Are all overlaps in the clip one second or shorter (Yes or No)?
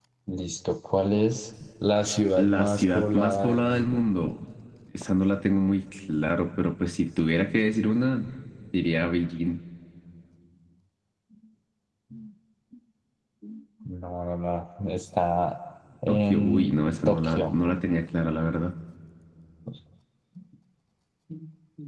No